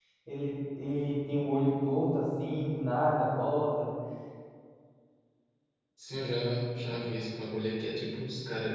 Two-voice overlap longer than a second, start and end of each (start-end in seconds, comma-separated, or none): none